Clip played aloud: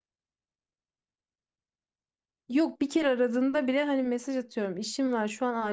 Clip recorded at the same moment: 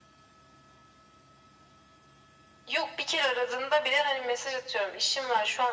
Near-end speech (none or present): none